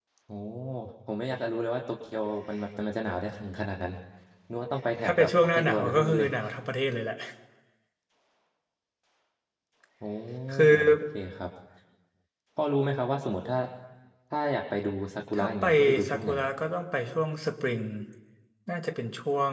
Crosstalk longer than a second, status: present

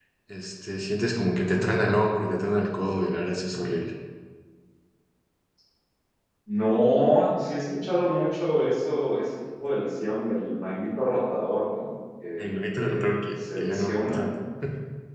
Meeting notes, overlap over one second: present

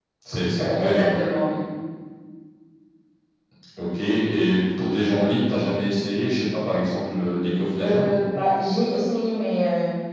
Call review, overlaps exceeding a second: none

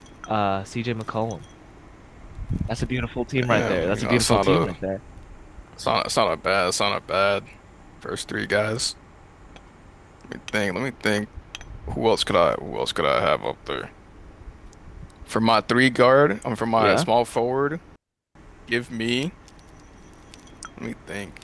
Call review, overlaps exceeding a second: present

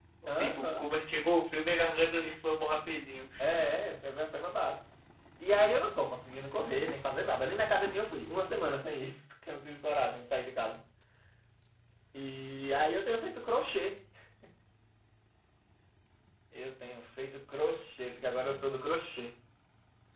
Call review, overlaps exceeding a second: none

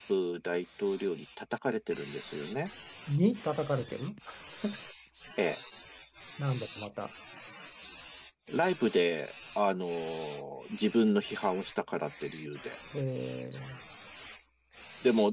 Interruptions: none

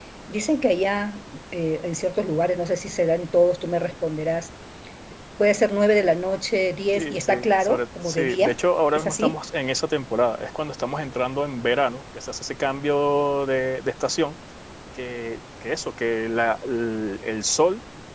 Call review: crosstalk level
present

